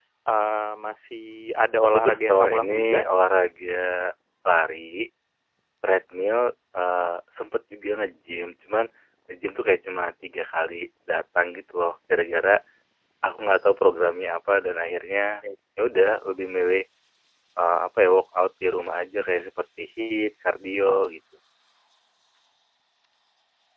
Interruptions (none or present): present